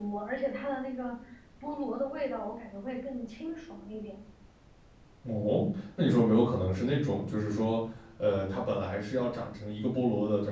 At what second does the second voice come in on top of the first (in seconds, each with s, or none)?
none